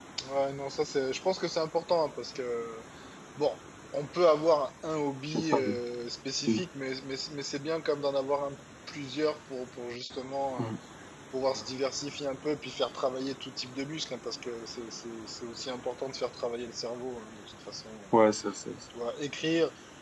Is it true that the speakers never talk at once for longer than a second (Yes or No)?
Yes